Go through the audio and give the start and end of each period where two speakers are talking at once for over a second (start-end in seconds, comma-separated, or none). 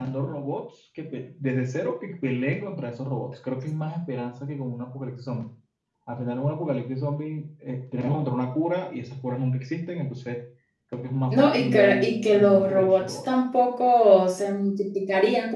11.3-13.2